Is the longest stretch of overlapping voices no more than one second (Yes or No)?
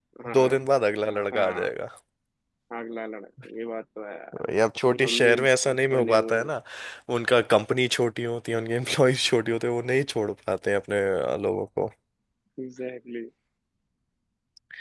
Yes